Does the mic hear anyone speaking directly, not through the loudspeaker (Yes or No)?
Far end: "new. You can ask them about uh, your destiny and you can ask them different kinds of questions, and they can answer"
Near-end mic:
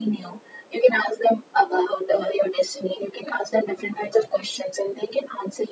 No